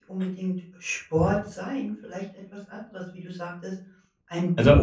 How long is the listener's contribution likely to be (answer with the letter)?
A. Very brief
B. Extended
A